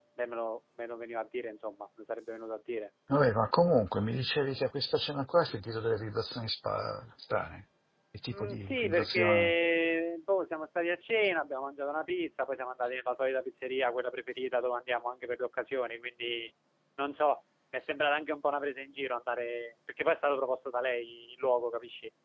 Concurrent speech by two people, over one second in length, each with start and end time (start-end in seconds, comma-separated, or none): 8.3-9.5